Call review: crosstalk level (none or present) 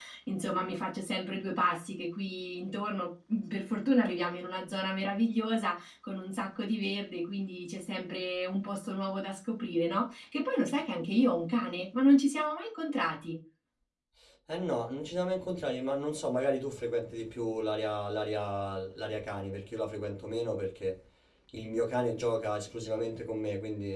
none